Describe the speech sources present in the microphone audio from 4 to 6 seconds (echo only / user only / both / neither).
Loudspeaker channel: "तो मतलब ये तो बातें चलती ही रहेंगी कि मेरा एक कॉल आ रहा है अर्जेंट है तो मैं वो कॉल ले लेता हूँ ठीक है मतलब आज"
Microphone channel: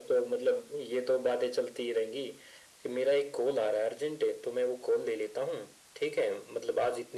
echo only